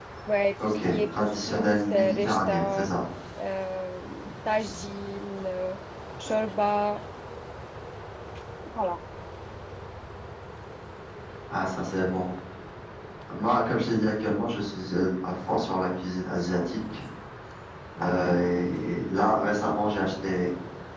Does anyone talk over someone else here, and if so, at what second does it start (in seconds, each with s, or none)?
0.6 s